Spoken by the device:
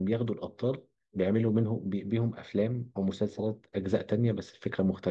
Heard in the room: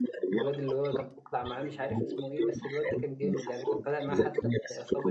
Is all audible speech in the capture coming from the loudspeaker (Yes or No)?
No